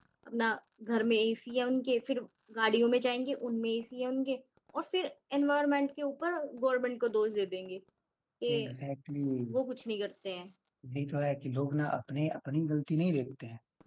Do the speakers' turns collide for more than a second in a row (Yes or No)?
No